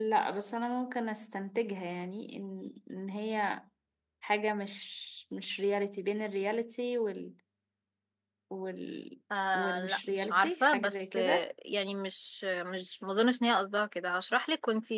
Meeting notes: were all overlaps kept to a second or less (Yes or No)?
No